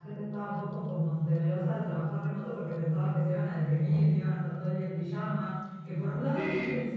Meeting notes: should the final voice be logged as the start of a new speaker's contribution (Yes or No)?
No